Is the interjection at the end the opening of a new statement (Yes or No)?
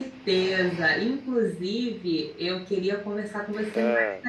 No